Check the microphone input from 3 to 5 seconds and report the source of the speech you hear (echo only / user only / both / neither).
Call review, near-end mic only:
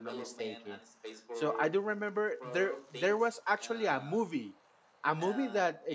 both